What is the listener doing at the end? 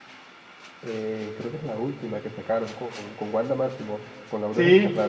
taking over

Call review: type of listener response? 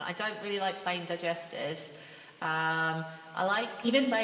listening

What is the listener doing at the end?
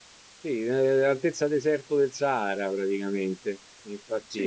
taking over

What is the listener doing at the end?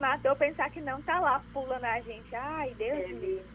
taking over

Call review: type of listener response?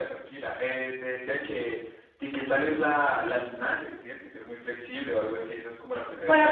taking over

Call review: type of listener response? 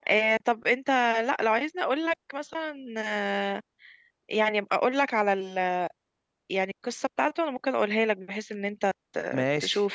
taking over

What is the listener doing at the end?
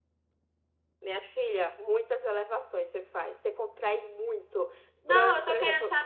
taking over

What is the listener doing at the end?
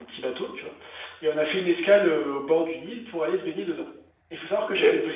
listening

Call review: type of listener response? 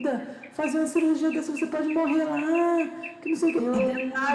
listening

